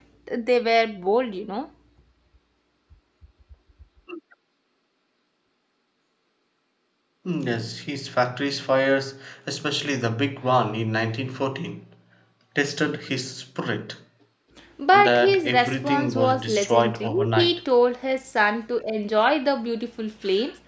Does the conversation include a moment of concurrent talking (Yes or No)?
Yes